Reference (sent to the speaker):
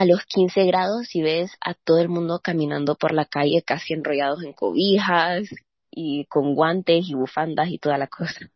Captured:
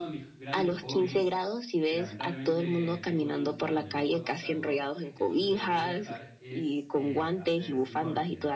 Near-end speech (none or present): present